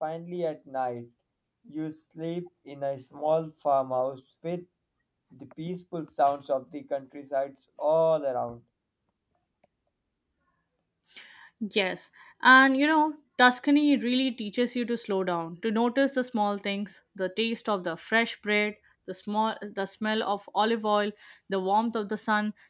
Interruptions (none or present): none